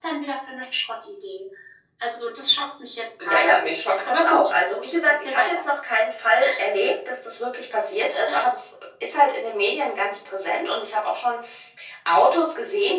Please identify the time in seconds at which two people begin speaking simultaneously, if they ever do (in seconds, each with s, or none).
3.2 s